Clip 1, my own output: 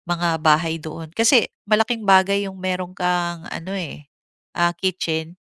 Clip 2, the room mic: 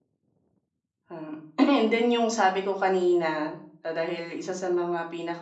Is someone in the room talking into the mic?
Yes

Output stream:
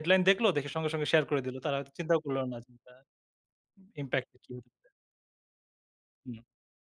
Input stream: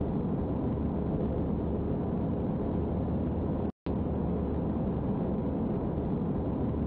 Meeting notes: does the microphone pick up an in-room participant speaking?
No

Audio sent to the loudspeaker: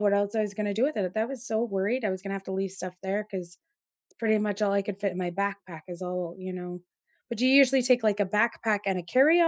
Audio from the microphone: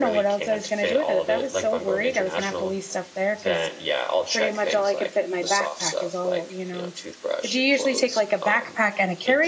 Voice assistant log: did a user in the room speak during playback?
Yes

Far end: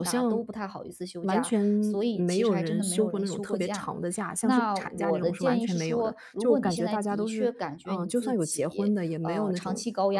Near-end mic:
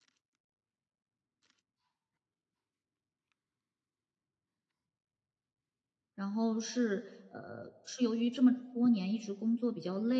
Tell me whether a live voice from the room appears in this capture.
Yes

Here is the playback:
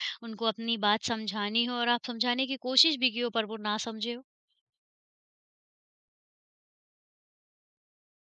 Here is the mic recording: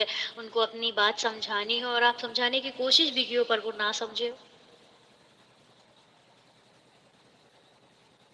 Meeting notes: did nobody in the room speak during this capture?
Yes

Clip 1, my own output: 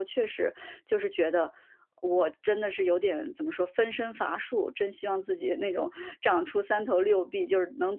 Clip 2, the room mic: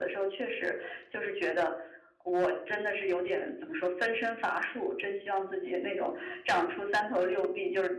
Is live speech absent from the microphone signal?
Yes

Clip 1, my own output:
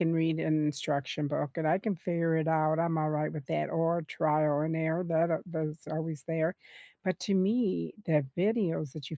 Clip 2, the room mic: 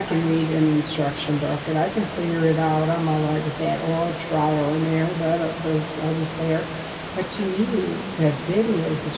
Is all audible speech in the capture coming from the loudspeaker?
Yes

